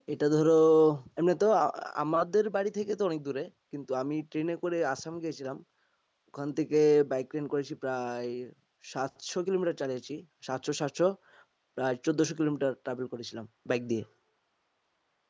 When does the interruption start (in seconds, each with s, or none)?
none